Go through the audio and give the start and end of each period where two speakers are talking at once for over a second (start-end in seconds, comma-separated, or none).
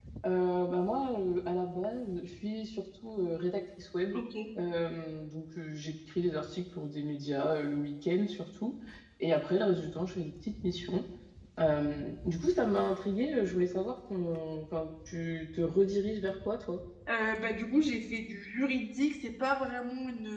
none